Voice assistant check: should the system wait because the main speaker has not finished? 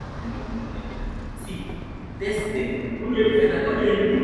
No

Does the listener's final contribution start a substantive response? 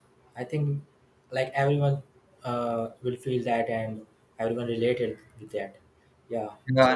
Yes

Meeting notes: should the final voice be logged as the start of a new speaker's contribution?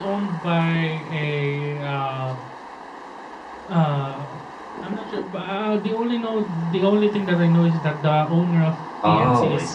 Yes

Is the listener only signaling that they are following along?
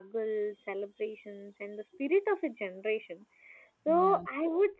Yes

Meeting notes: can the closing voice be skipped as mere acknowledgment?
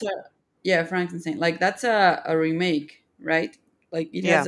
Yes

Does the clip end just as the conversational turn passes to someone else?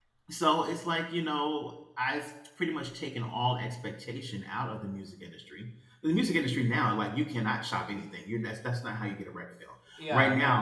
No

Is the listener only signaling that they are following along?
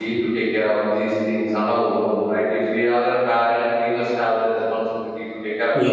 Yes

